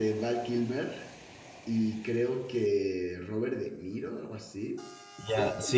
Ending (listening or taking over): taking over